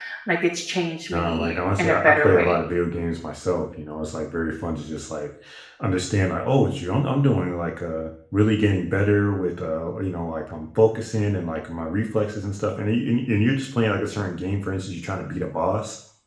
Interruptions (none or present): present